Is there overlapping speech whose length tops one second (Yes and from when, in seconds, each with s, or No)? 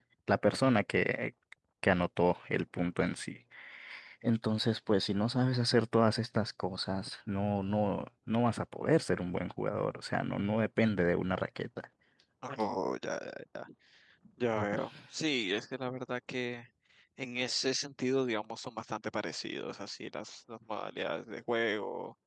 No